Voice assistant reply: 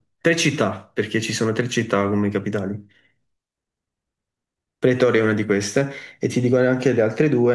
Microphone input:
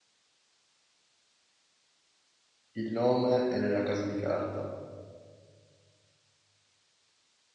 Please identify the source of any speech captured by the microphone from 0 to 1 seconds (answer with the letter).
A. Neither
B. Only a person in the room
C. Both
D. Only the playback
A